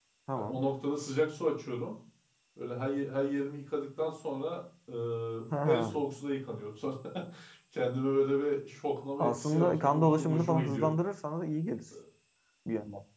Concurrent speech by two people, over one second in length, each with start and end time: 9.2-10.9

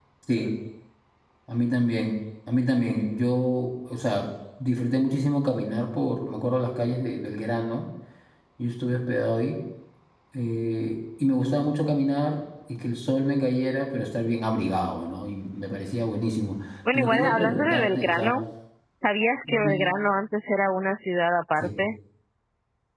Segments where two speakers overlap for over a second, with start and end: 16.9-18.3

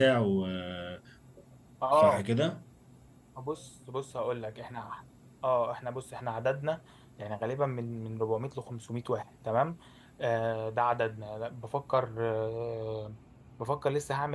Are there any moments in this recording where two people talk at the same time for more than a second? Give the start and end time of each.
none

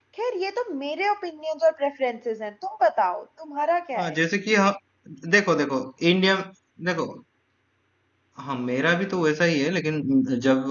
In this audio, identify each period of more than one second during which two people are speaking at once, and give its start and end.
none

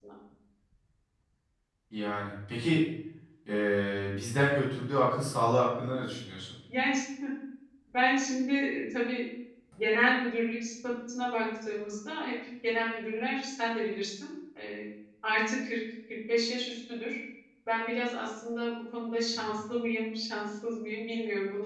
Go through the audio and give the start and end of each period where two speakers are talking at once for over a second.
none

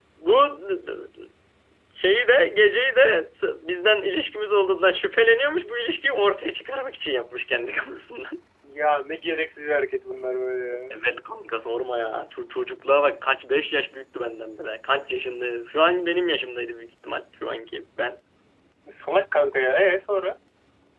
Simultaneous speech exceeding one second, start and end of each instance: none

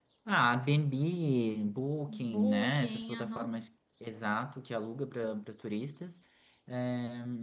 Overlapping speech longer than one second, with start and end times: 2.1-3.6

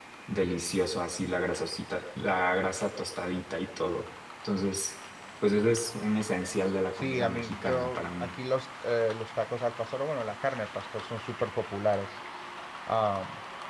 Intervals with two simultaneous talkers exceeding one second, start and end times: 7.0-8.3

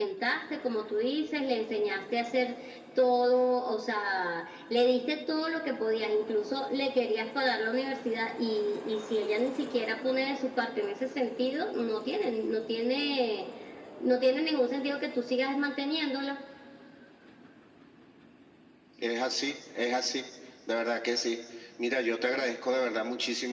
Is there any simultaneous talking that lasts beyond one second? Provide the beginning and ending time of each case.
none

